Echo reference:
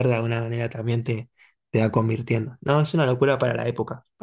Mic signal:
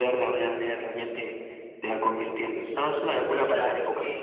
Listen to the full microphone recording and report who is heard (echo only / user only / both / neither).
both